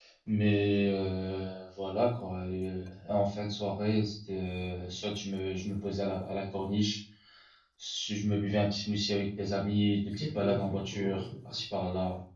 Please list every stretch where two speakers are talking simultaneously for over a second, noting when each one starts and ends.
10.2-11.6

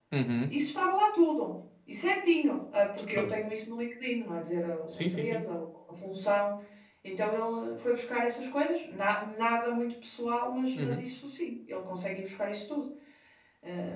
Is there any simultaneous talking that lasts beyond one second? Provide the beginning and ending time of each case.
none

